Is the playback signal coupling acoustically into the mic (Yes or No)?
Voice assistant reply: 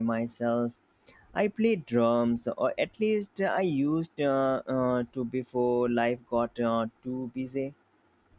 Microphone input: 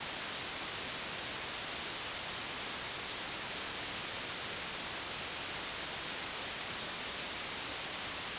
No